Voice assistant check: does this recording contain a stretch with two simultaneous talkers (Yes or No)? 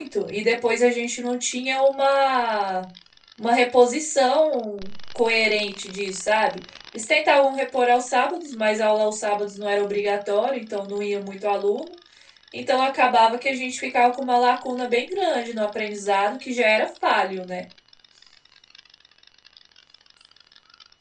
No